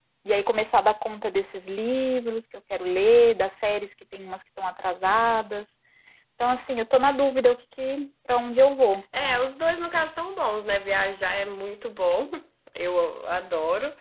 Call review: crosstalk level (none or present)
none